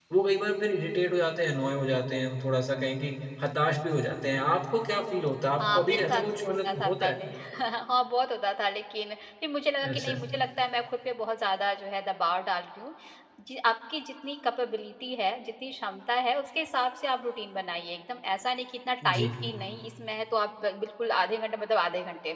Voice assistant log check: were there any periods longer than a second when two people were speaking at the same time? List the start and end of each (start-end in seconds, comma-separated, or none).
5.6-7.2